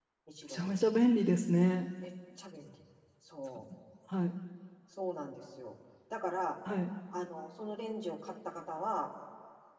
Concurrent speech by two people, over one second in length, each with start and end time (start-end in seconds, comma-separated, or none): none